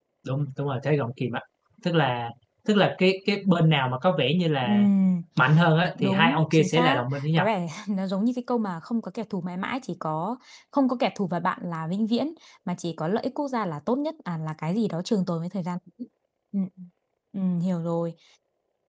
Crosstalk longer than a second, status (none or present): present